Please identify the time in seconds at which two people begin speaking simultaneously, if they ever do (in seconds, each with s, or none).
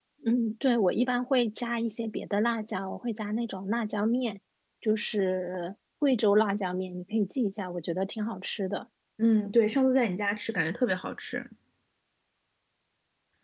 none